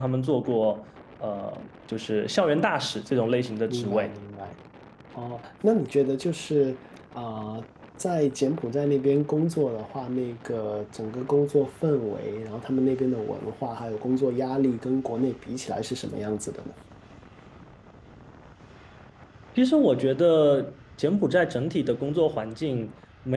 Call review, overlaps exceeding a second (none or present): none